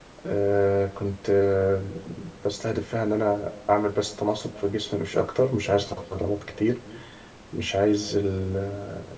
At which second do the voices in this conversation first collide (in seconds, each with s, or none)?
none